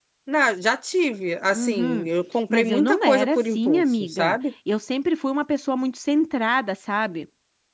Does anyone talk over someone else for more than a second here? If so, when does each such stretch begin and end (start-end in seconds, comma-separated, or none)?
2.5-4.4